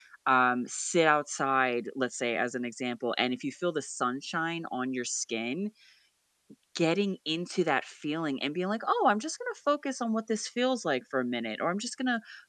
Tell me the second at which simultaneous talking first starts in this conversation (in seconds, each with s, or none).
none